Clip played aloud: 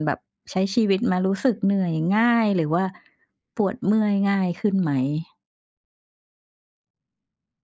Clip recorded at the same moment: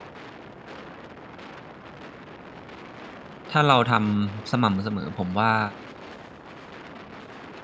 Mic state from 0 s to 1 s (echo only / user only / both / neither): neither